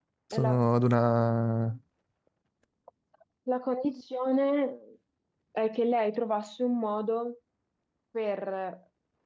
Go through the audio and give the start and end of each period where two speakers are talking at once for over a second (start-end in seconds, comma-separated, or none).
none